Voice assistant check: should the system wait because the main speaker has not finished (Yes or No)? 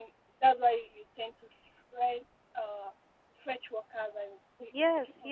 No